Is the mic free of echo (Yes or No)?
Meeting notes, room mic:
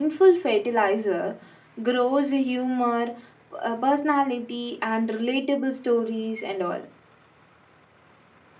Yes